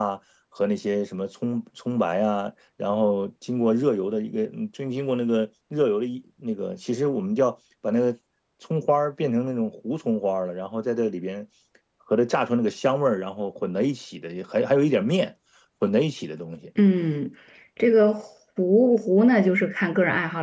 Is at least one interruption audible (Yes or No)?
No